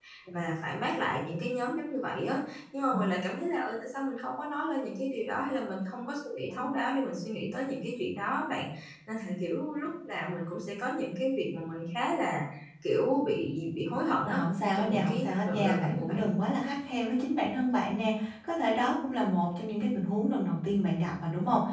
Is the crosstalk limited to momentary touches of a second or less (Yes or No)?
No